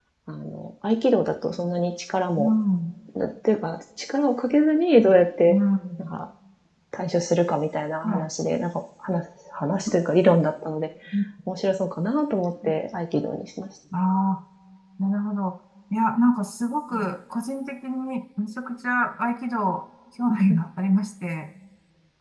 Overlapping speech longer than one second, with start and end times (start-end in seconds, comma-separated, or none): none